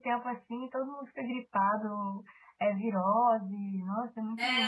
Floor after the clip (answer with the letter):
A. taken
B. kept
A